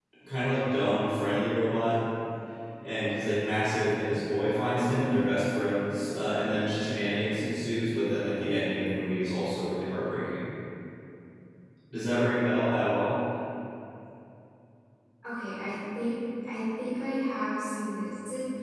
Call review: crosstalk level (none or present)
none